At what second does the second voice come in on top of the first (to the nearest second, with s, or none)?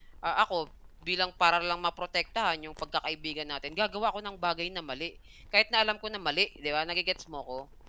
none